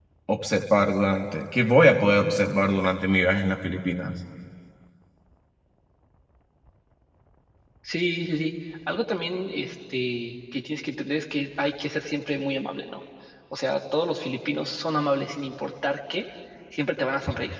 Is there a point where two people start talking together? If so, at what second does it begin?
none

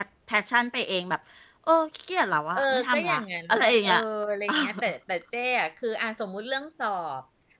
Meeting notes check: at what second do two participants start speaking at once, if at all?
2.6 s

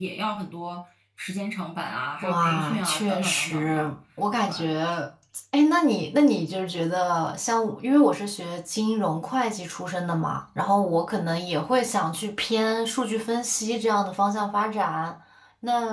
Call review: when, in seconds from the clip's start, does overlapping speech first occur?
2.2 s

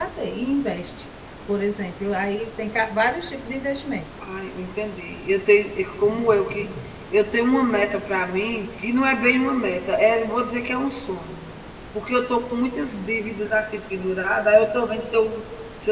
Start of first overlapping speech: none

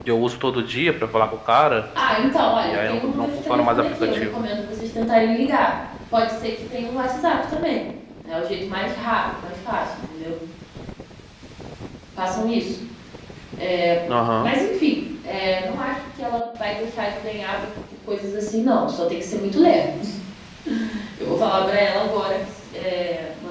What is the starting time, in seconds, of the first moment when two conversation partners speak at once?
2.6 s

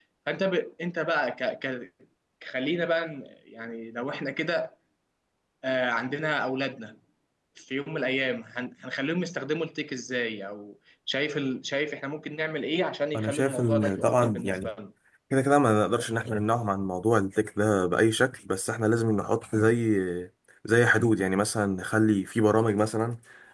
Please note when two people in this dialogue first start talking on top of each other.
13.1 s

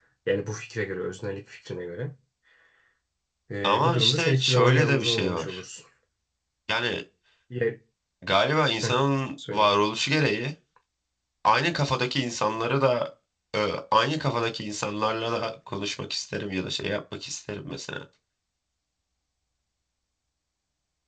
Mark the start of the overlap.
3.6 s

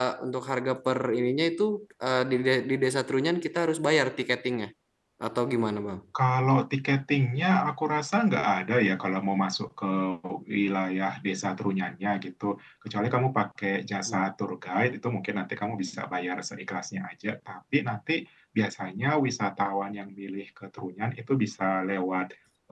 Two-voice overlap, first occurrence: none

